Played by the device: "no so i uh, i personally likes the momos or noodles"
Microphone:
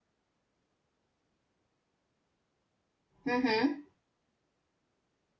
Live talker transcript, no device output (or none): Mm-hmm.